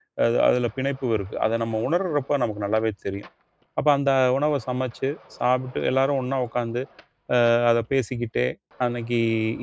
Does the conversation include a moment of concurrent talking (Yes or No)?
No